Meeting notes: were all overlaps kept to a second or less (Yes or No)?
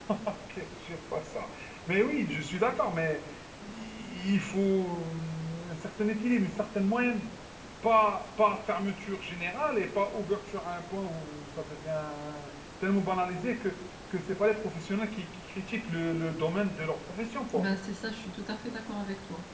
Yes